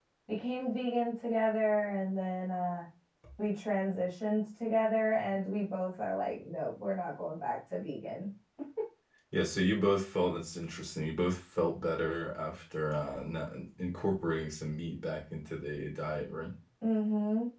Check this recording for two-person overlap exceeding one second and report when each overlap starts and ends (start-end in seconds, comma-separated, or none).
none